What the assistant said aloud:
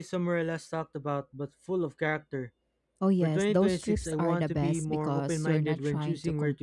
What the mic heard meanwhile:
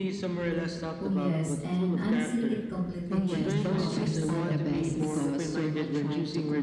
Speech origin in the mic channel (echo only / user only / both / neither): both